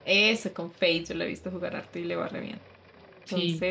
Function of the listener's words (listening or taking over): listening